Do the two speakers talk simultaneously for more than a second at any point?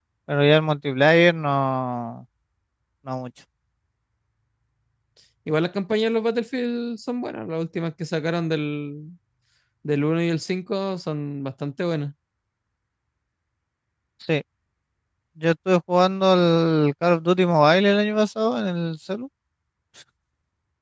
No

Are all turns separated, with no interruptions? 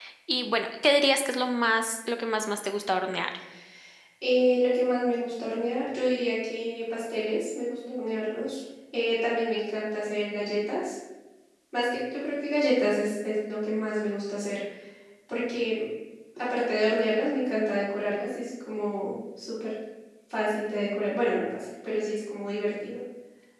Yes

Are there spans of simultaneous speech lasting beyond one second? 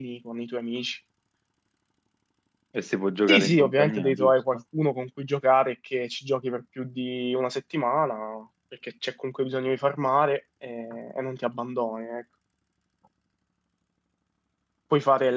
Yes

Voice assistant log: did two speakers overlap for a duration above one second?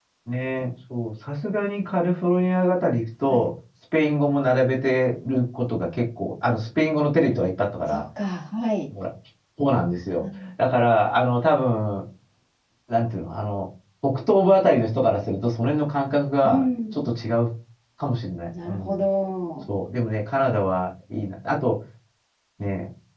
No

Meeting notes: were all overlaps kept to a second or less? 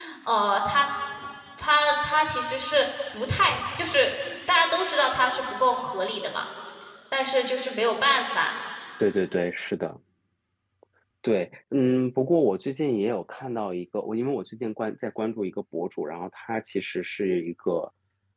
Yes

